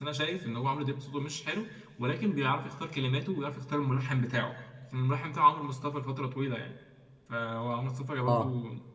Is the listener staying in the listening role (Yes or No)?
Yes